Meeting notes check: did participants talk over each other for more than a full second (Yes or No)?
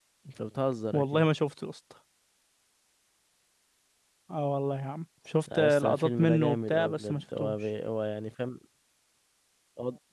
Yes